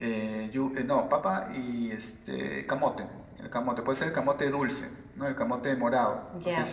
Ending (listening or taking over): taking over